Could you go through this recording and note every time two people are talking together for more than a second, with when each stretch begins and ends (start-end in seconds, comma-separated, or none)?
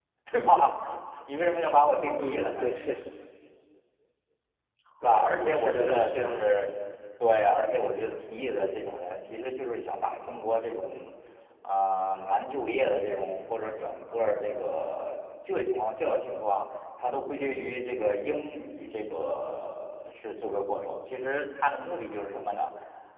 5.0-6.5